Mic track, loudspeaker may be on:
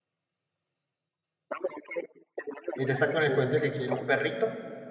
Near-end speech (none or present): present